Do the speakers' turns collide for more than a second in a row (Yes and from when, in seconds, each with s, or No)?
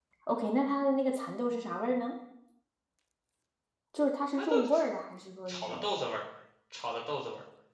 No